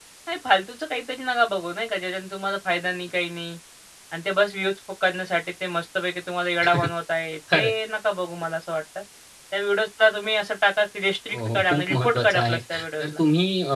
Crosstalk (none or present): present